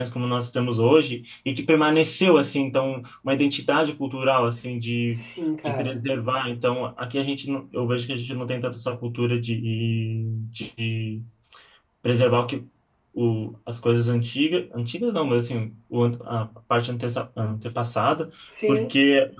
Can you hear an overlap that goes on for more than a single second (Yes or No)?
No